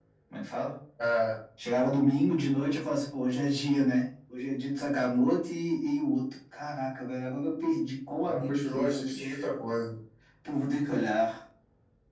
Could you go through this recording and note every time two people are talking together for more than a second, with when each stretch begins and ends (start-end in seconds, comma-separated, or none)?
8.2-9.4